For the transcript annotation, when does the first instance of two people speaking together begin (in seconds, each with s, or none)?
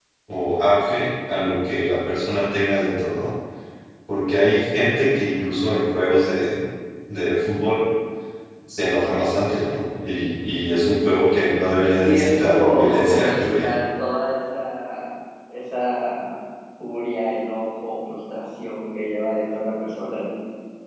12.0 s